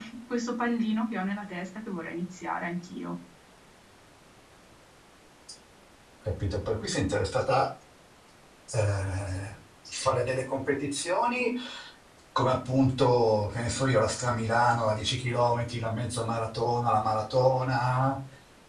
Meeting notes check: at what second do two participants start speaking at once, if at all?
none

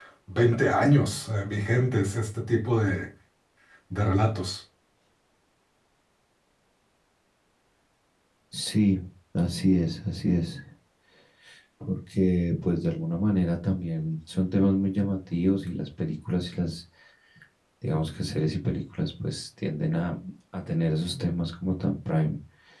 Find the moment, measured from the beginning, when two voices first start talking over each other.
none

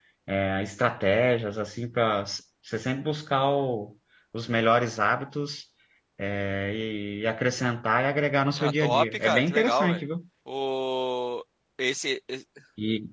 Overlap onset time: 8.6 s

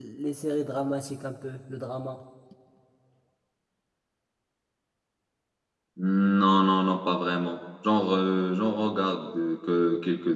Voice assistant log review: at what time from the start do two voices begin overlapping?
none

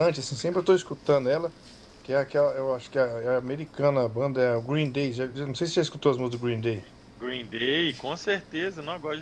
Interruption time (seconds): none

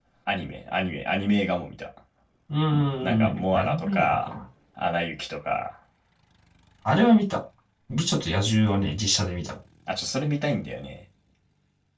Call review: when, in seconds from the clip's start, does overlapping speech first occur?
2.7 s

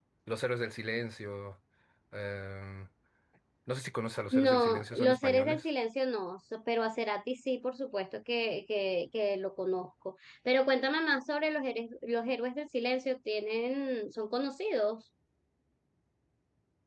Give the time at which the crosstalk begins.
4.3 s

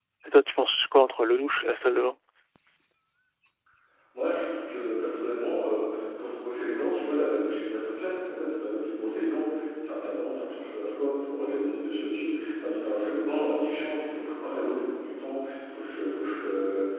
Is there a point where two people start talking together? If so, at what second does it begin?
none

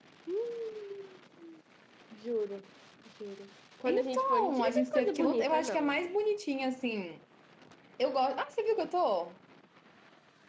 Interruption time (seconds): 3.8 s

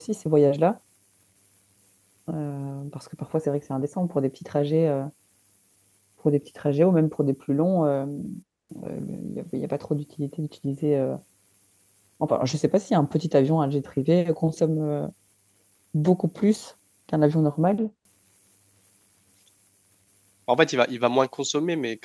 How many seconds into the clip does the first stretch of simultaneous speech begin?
none

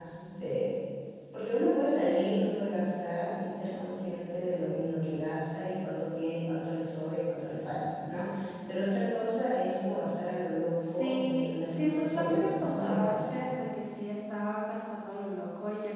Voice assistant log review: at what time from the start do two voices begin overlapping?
10.8 s

